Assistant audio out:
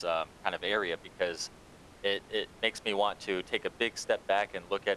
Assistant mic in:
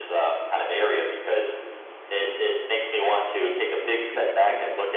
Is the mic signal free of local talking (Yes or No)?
No